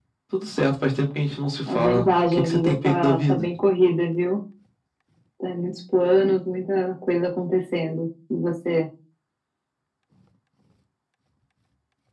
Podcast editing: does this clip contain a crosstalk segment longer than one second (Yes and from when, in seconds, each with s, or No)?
Yes, from 1.7 s